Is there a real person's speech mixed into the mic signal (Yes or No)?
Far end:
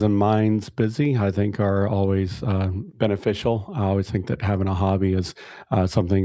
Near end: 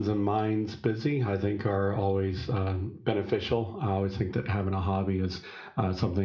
No